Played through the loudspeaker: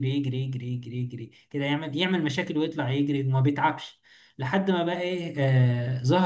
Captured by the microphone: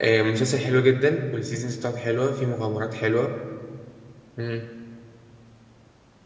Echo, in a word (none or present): none